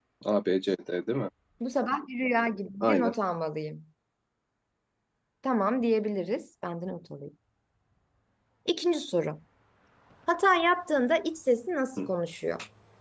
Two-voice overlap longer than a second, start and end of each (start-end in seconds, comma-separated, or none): none